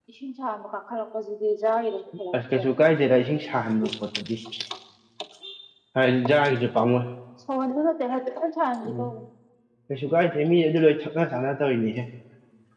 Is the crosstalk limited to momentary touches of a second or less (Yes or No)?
Yes